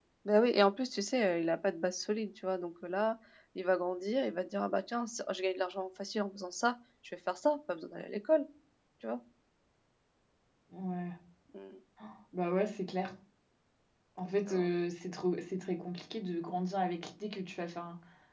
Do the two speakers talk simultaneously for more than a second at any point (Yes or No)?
No